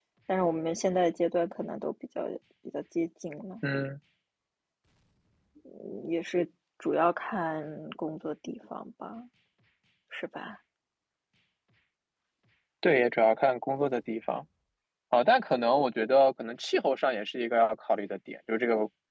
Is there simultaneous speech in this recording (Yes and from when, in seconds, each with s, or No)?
No